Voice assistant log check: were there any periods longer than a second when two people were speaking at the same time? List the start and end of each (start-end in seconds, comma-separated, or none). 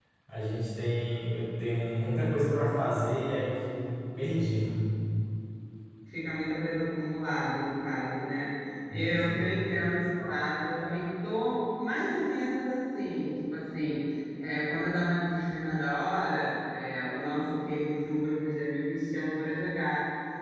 none